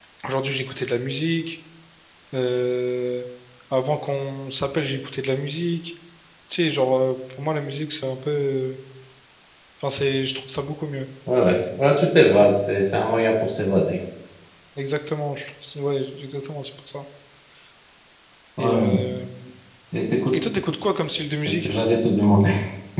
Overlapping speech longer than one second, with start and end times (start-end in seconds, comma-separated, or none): none